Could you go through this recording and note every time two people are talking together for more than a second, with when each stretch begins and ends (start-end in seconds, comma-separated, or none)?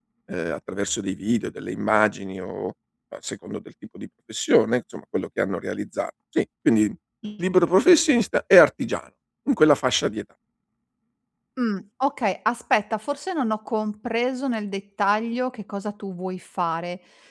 none